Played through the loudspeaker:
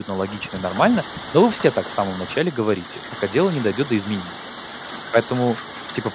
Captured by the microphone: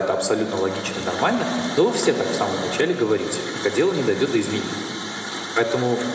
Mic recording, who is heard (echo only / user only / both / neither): echo only